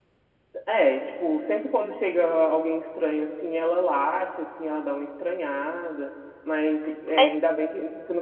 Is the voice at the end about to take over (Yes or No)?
No